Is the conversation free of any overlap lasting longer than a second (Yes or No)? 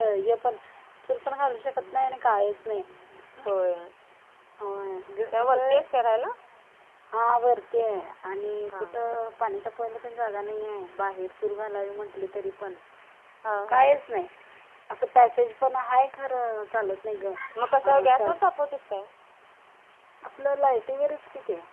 Yes